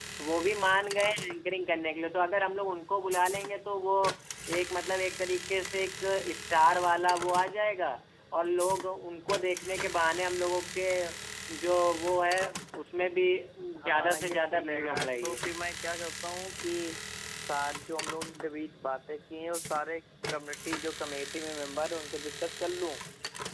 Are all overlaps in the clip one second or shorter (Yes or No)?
No